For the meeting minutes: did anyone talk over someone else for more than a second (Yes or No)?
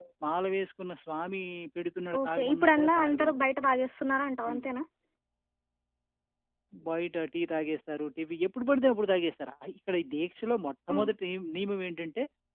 Yes